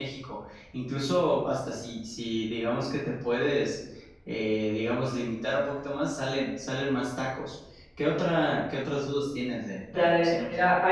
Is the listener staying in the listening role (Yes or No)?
No